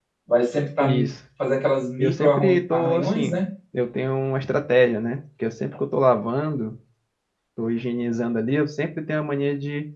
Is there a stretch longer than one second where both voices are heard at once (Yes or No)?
Yes